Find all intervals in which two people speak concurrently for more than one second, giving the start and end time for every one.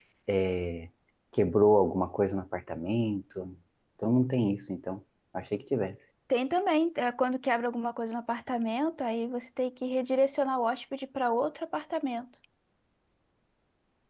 none

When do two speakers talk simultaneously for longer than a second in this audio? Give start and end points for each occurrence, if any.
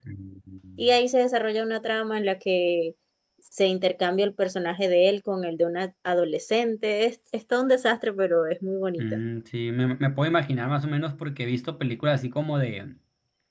none

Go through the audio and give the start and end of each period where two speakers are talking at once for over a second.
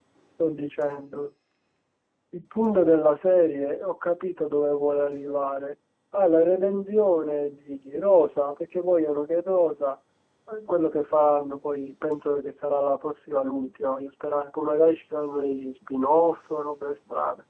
none

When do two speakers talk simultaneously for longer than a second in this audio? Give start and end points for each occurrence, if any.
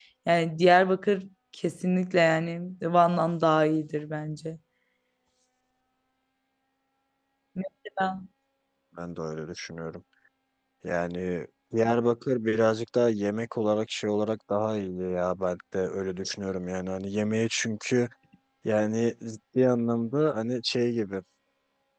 none

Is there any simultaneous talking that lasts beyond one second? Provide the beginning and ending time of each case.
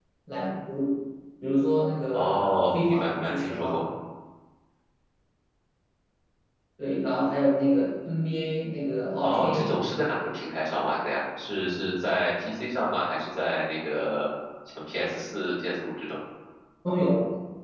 2.1-3.8

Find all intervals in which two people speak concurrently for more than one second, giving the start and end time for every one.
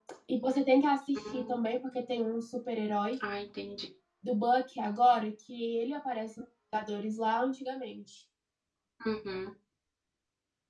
none

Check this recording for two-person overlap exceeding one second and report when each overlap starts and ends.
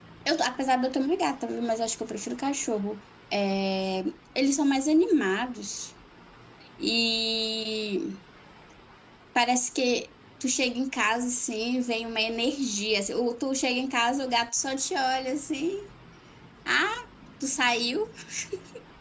none

